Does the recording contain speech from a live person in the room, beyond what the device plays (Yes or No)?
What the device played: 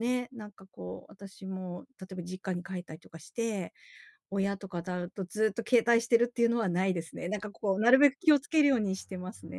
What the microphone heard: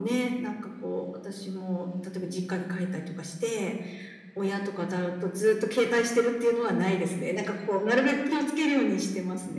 No